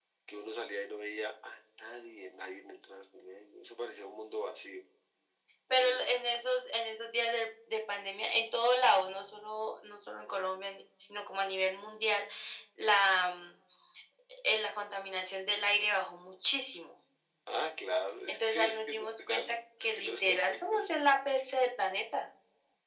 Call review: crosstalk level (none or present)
present